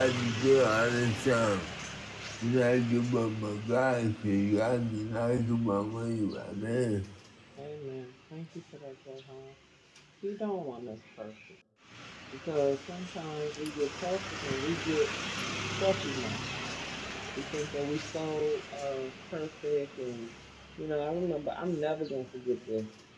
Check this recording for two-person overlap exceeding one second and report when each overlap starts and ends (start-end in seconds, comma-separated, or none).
none